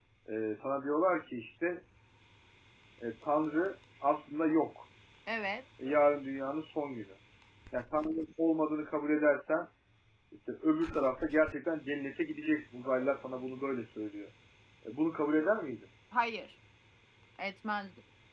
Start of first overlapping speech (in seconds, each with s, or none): none